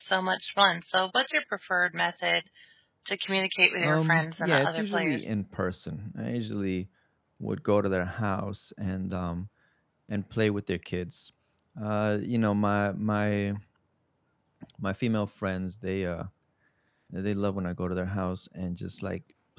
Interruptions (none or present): present